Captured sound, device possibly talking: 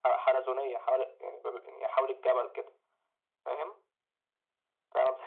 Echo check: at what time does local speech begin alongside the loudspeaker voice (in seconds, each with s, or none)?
none